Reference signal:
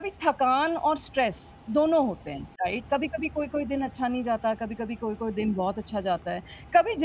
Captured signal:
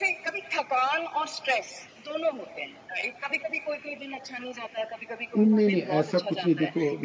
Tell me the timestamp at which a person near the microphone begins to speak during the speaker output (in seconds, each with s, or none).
5.4 s